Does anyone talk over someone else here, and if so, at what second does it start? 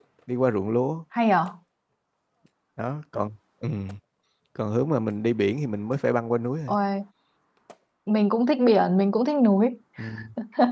none

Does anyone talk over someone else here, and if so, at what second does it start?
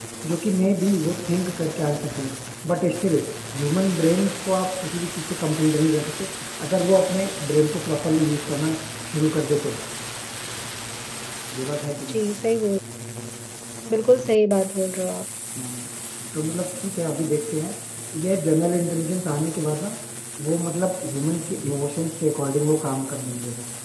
none

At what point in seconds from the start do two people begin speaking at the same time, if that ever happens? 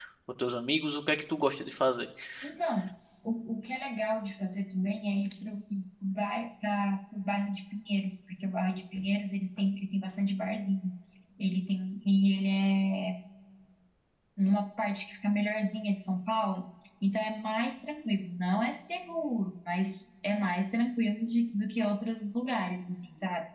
none

